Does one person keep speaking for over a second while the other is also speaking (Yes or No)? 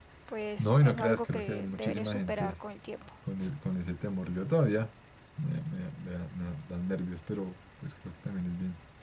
Yes